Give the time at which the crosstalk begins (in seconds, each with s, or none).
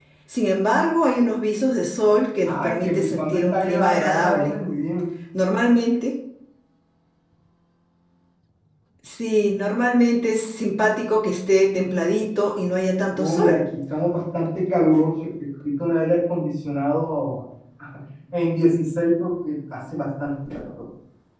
2.5 s